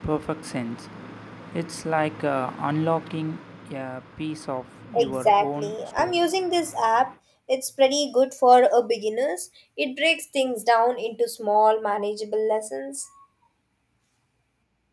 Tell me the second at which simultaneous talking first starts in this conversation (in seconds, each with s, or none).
4.9 s